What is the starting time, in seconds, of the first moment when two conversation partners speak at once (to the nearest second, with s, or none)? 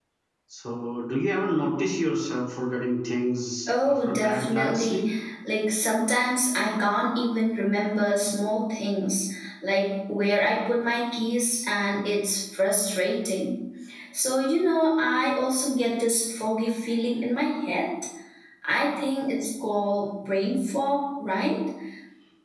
4 s